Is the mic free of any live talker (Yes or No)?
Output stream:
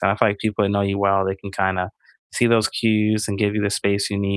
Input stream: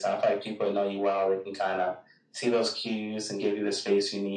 Yes